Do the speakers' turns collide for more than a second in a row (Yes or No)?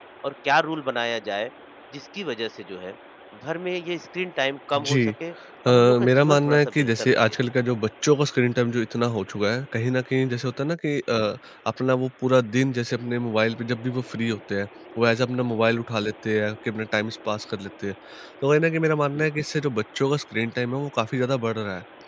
Yes